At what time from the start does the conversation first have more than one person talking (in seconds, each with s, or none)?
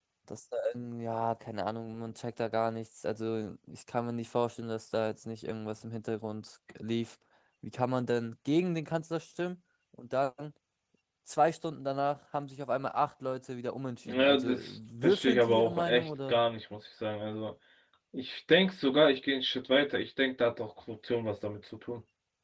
14.0 s